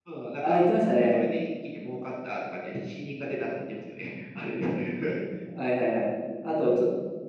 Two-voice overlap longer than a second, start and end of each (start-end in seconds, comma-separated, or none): none